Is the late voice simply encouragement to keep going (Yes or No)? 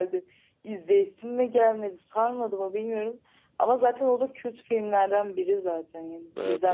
No